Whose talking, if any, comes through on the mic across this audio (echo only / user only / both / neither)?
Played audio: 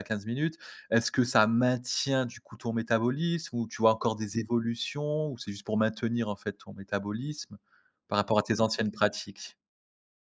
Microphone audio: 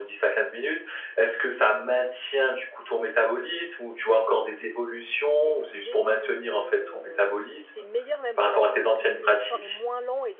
both